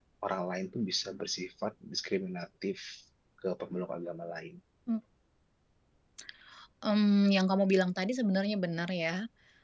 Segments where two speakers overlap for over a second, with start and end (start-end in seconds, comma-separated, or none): none